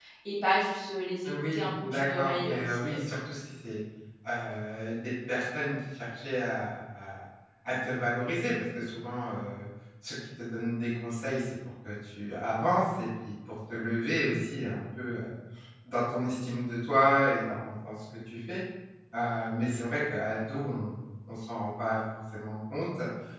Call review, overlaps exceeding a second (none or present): present